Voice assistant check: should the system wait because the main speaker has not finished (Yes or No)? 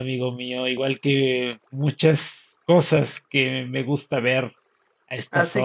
No